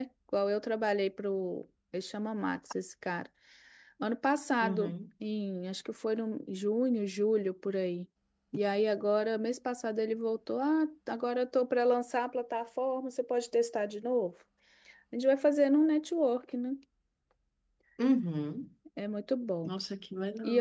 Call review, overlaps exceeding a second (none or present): none